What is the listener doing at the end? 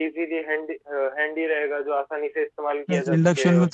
taking over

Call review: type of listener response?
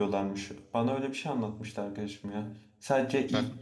taking over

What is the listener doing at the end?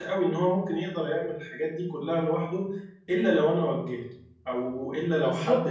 taking over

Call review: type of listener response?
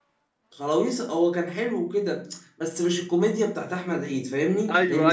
taking over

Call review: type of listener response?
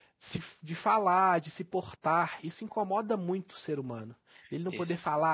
listening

